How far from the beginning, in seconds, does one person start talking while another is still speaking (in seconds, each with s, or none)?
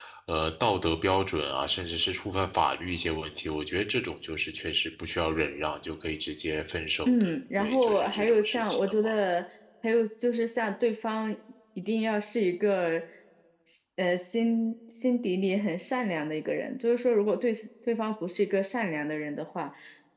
7.1 s